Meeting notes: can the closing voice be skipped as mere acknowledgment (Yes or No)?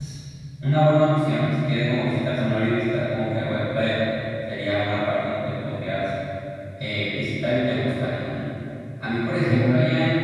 Yes